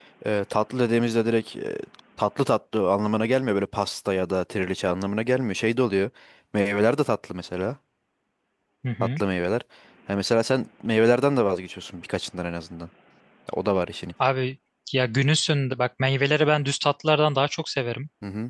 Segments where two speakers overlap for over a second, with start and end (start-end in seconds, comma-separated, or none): none